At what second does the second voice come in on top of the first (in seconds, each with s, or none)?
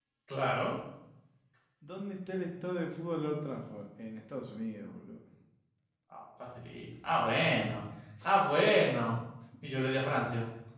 none